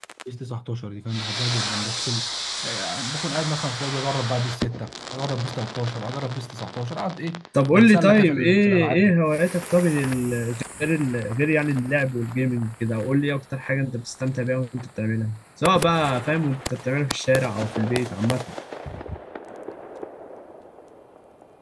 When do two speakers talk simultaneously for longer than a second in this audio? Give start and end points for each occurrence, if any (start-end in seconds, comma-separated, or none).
7.7-9.1